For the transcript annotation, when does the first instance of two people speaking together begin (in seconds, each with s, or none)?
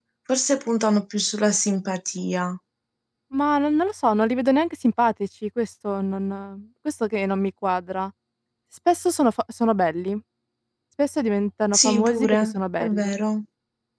11.7 s